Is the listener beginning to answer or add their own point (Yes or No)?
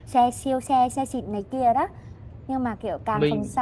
No